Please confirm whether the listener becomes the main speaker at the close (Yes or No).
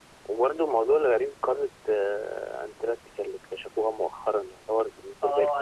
Yes